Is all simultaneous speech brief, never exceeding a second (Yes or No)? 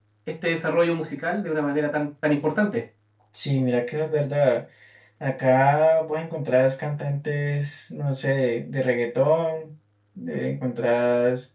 Yes